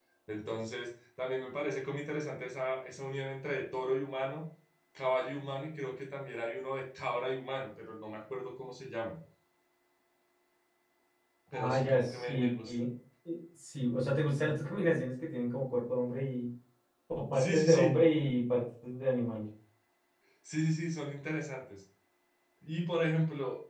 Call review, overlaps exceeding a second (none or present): present